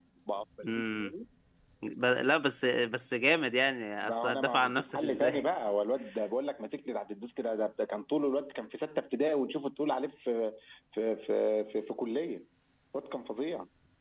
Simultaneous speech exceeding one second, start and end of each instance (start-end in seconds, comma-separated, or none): 4.0-5.4